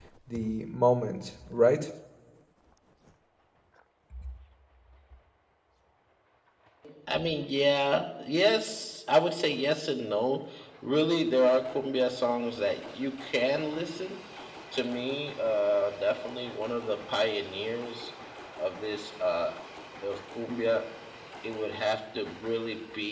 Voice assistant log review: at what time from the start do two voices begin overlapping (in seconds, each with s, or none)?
none